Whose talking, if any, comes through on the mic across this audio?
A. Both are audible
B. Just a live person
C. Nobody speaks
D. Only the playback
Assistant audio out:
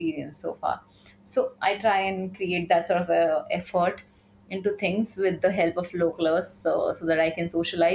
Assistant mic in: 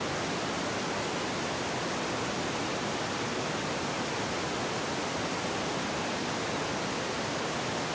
C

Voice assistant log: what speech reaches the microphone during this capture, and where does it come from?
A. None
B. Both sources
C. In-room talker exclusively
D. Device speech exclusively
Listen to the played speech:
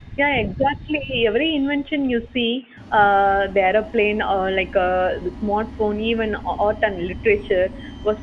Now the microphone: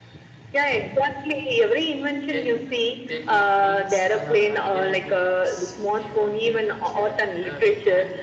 B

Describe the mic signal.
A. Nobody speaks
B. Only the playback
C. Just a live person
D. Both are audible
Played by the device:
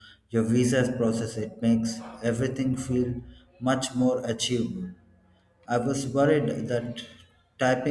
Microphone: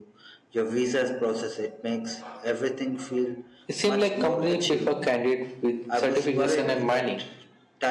D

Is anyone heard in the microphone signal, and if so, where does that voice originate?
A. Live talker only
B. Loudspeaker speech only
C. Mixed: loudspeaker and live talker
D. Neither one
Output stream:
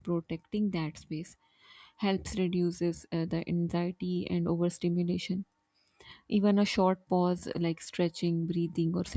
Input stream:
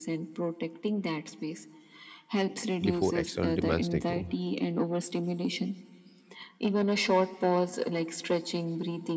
C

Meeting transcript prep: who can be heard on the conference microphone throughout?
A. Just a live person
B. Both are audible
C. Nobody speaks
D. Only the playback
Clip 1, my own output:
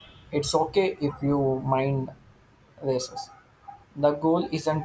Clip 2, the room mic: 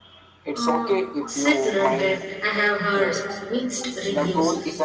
B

